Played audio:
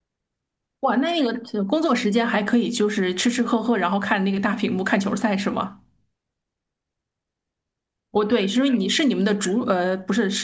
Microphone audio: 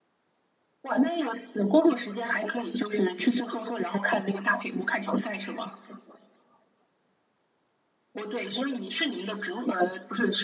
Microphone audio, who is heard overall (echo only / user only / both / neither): echo only